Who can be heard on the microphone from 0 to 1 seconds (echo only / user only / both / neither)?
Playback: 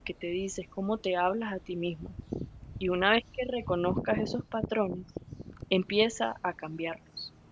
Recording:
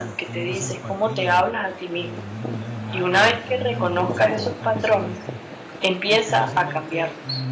both